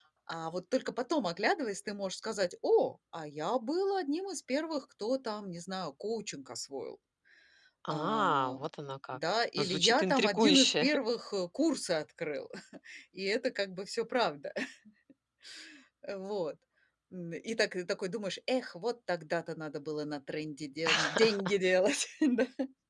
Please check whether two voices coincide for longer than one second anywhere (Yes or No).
Yes